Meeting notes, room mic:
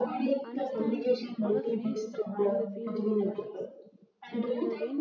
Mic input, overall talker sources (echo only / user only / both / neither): both